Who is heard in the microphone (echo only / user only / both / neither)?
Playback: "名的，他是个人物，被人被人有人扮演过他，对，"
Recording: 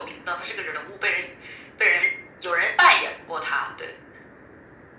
echo only